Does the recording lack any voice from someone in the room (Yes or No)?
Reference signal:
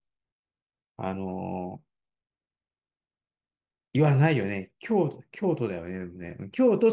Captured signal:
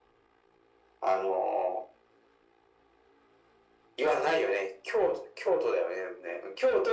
Yes